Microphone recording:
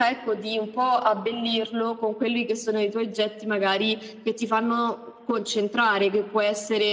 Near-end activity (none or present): none